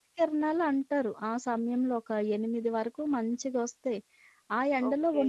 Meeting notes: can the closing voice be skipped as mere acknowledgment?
Yes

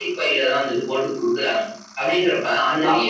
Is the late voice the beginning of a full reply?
No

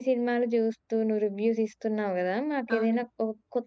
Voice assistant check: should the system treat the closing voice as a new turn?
No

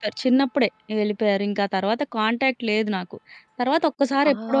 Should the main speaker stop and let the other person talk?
No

